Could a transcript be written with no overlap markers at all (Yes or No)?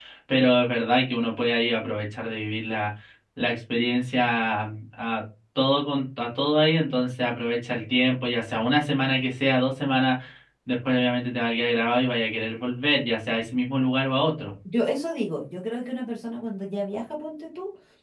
Yes